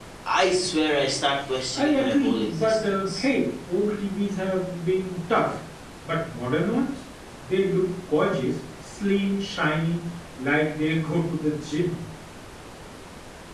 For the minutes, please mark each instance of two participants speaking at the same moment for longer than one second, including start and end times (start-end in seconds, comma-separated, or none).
1.7-3.3